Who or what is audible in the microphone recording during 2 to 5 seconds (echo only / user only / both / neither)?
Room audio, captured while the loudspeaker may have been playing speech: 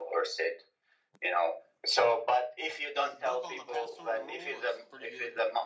both